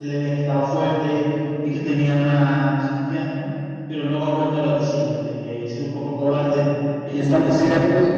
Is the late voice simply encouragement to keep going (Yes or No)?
No